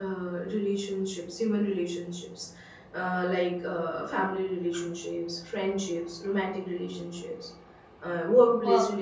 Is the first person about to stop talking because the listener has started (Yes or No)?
No